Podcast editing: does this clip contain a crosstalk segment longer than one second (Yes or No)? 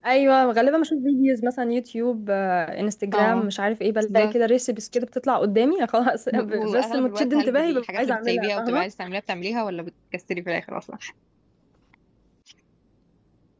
Yes